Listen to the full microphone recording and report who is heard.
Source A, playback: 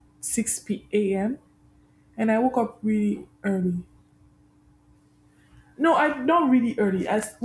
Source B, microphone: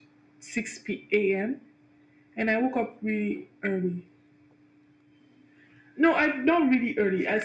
echo only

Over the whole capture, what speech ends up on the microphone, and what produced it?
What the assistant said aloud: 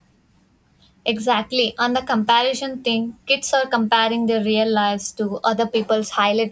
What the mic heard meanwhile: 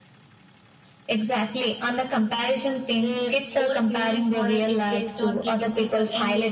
both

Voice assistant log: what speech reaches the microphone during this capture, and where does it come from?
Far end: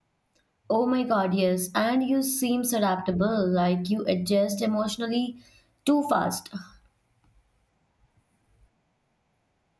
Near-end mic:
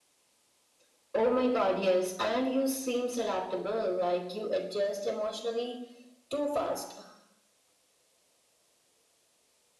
echo only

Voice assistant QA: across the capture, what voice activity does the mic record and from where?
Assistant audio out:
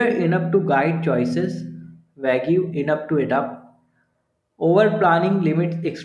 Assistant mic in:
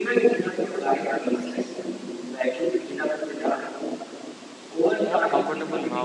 both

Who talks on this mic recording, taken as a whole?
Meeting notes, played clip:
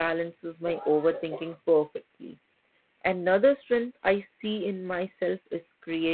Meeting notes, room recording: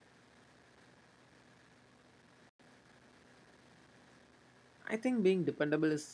user only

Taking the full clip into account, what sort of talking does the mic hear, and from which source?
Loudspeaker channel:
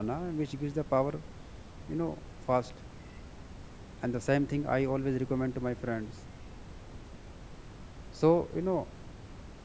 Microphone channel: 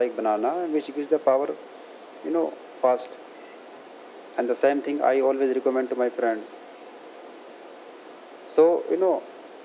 echo only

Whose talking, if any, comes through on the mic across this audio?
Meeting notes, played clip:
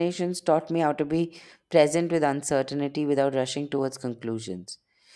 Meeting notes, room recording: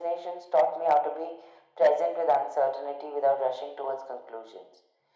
echo only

